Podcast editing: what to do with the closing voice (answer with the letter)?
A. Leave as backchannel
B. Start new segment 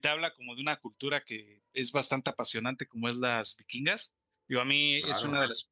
A